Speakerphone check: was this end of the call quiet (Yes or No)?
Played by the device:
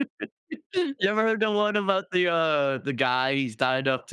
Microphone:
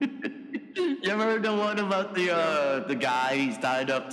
No